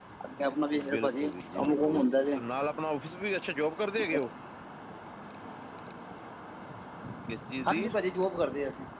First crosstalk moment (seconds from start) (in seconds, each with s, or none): 0.9 s